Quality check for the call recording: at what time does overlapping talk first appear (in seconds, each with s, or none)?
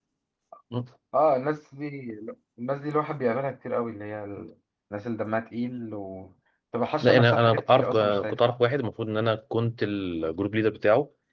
7.0 s